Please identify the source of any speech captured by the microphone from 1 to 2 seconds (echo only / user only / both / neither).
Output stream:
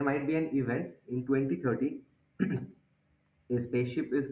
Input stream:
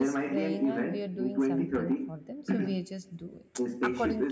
both